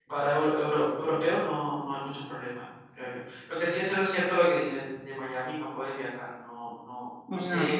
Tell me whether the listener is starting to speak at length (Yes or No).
No